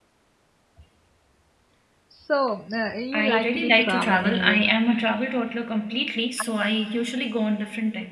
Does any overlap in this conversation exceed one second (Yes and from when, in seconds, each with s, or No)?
Yes, from 3.1 s